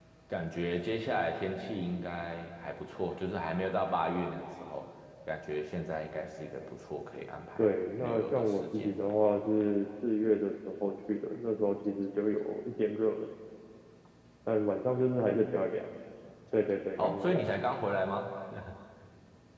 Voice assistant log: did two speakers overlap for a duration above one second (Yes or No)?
Yes